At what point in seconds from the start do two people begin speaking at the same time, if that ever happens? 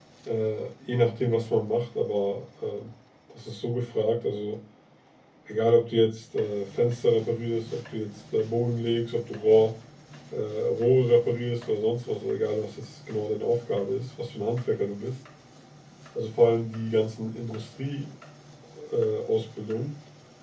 none

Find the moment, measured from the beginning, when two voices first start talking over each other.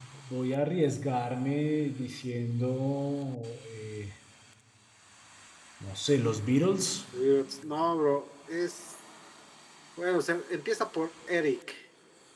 none

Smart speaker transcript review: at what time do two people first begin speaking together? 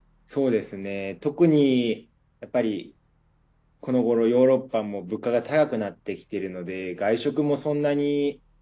none

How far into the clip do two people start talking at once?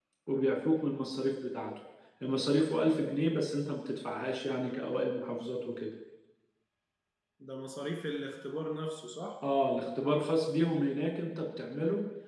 none

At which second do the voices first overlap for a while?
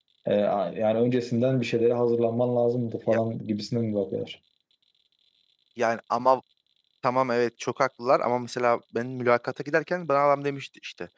none

